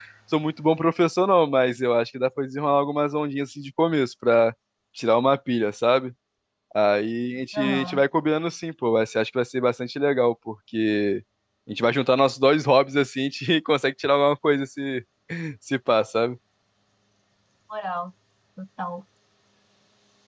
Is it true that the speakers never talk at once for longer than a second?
Yes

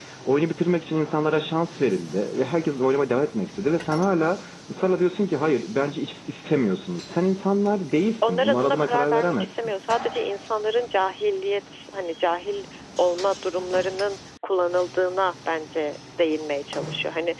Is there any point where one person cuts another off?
Yes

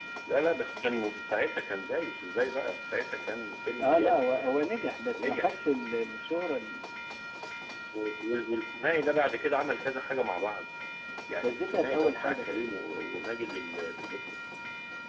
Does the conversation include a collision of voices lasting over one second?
Yes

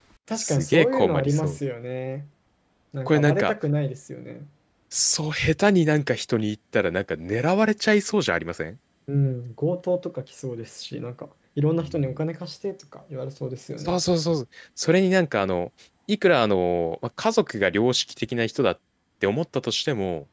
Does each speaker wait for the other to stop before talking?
No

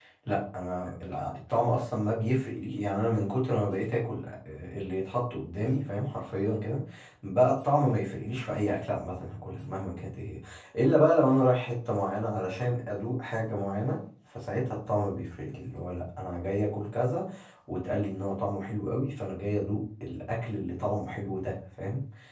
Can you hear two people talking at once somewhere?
No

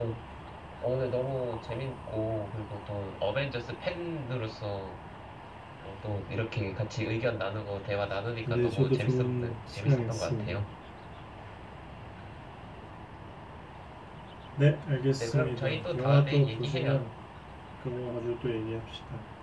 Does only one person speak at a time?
No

